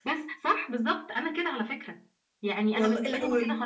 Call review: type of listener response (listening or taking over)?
listening